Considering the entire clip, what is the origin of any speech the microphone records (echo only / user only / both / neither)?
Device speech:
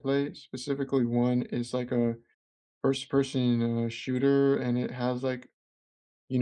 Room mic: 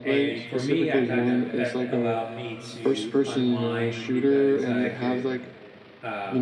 both